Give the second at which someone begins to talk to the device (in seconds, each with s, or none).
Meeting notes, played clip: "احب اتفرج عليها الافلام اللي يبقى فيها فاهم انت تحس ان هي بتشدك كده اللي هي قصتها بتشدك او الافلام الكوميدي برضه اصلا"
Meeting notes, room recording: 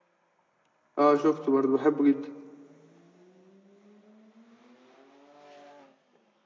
1.0 s